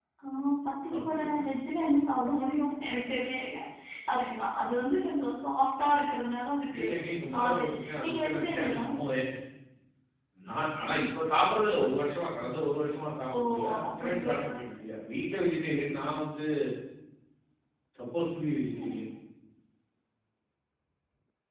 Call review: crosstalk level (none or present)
present